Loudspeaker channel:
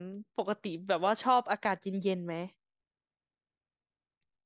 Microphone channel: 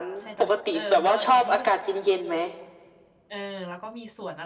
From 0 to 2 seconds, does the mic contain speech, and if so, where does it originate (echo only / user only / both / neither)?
both